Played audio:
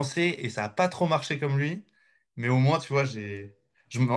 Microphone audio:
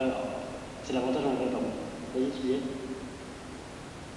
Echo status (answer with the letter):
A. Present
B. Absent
B